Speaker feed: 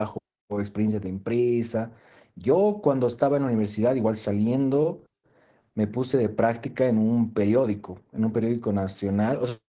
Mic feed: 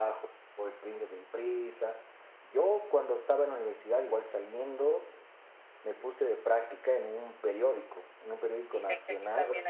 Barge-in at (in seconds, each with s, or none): 8.6 s